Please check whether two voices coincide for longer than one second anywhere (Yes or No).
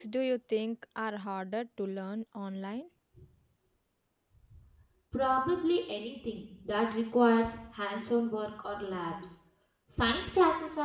No